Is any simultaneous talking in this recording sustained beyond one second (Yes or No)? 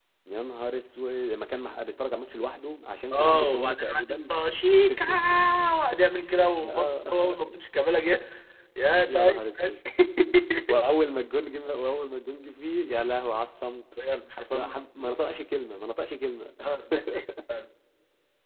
Yes